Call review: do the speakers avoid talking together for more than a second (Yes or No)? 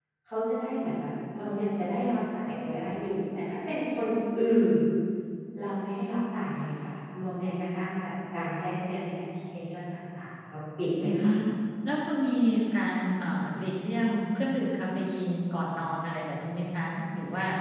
Yes